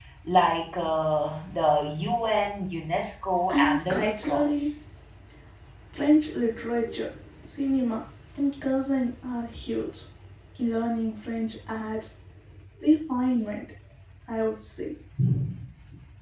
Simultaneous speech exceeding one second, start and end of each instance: 3.5-4.7

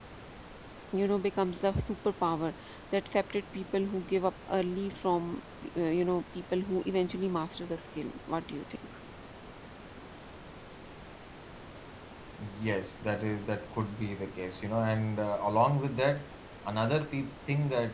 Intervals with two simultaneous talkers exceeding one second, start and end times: none

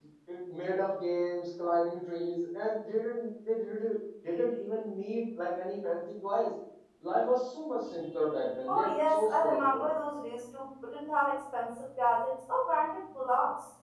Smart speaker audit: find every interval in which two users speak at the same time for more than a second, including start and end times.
8.7-9.9

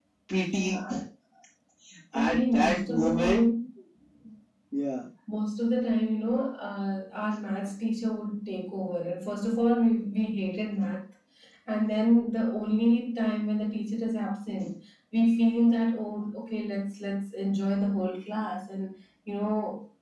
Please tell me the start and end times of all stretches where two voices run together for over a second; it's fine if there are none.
2.1-3.4

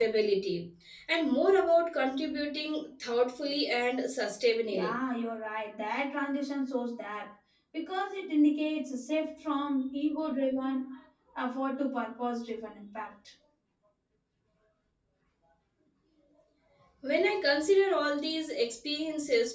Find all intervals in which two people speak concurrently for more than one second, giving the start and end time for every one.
none

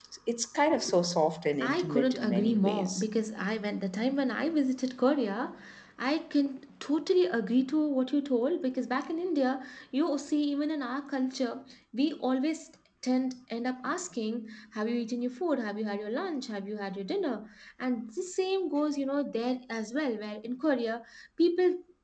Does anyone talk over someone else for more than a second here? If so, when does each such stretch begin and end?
1.6-3.0

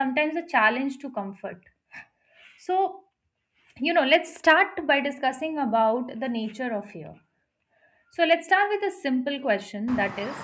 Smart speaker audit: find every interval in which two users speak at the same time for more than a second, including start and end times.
none

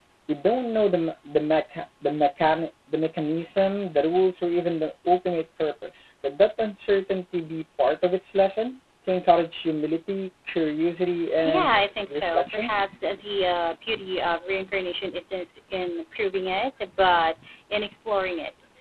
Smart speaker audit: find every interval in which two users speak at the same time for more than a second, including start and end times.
11.4-12.7

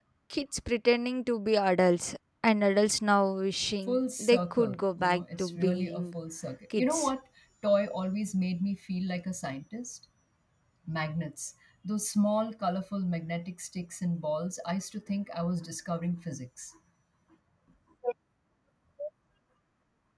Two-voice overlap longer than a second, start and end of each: 3.8-6.1

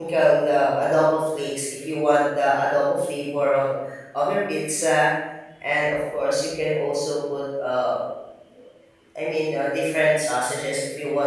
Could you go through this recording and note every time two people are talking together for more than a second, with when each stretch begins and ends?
none

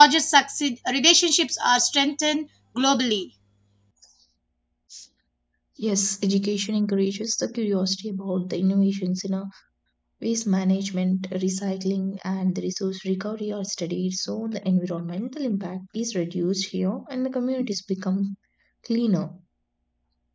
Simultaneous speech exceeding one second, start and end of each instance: none

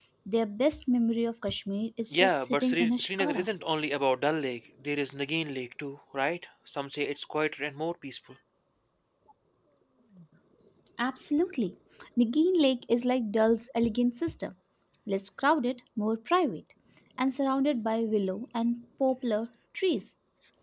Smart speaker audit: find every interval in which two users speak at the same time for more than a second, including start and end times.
2.1-3.5

